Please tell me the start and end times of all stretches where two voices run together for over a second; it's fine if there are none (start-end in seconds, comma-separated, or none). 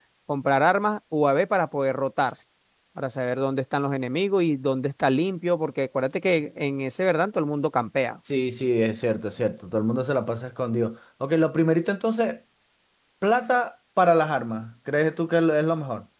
none